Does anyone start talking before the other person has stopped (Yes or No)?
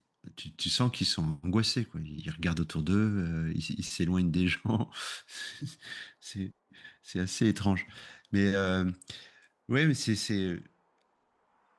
No